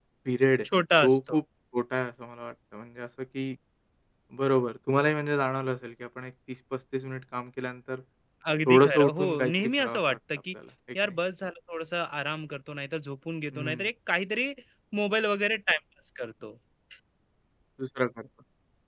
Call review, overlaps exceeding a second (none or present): present